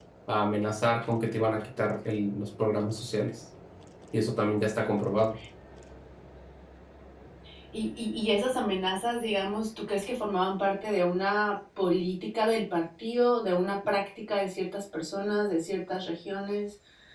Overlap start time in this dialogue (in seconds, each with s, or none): none